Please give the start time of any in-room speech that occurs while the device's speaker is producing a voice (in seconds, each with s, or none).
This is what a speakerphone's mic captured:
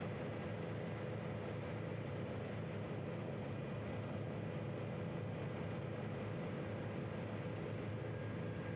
none